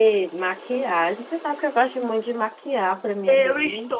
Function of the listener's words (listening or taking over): taking over